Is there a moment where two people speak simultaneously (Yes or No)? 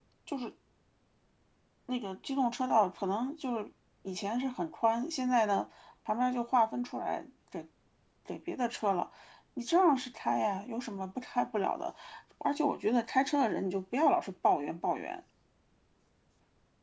No